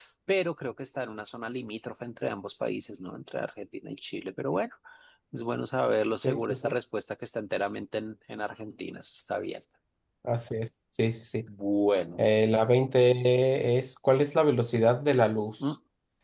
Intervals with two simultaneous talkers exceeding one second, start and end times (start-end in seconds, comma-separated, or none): none